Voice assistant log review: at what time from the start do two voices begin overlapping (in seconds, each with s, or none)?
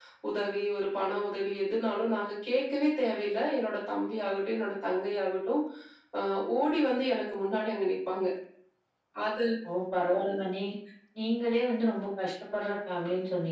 none